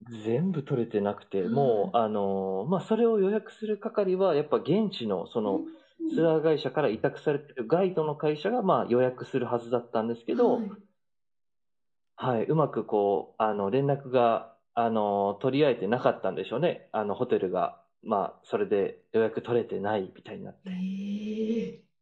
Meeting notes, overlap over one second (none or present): none